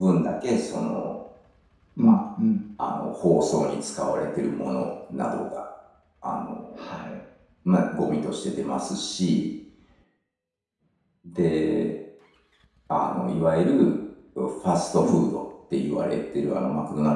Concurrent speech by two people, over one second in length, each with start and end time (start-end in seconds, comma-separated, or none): none